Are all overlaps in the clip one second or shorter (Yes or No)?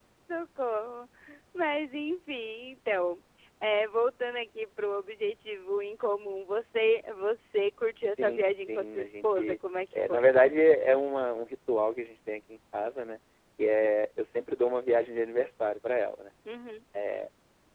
No